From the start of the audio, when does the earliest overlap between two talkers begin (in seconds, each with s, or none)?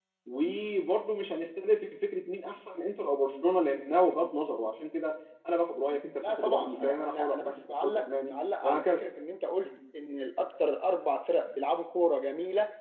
6.2 s